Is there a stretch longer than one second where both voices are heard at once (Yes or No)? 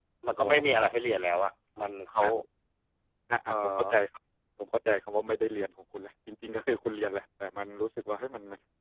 No